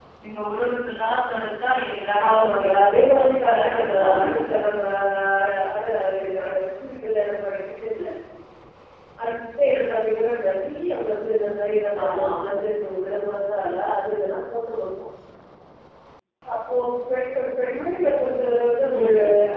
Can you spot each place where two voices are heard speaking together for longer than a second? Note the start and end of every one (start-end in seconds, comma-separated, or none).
2.3-4.6